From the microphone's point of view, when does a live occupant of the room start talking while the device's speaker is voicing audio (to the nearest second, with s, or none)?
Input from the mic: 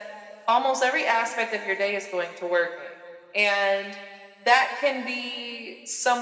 none